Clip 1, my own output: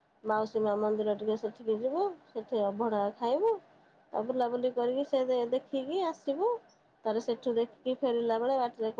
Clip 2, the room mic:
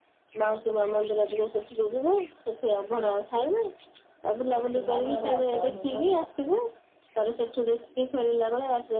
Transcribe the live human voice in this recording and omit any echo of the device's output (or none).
ଶୁଖିଲା ବରା, ଦହିବରା